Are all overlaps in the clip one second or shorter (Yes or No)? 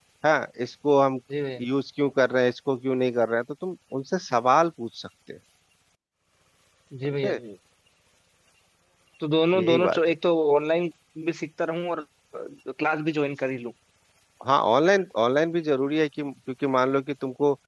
Yes